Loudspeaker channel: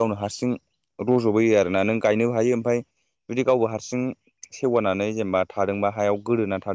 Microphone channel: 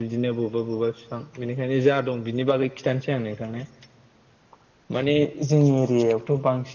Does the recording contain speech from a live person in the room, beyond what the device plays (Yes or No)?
Yes